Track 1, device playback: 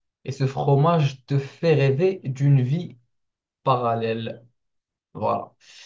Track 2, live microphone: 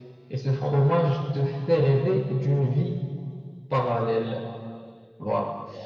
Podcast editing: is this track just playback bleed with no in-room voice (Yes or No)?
Yes